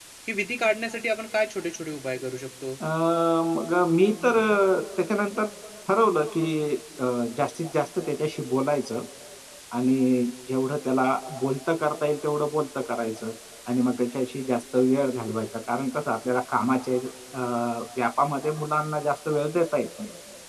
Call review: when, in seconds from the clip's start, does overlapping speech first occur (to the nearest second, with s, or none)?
none